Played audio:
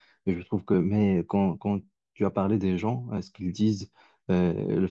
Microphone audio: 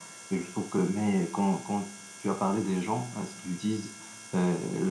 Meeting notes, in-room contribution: none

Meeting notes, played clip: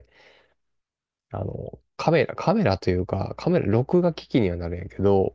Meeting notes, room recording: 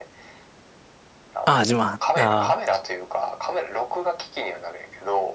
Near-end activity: present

